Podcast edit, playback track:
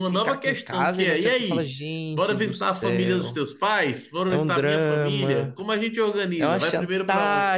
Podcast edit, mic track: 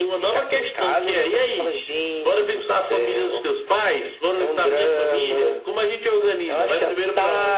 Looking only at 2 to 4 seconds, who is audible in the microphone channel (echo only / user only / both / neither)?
echo only